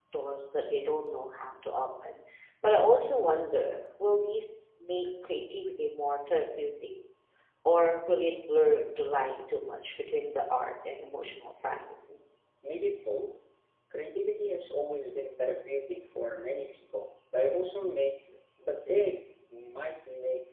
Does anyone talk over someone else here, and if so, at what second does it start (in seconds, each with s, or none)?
none